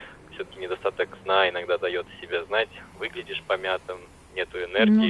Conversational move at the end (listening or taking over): listening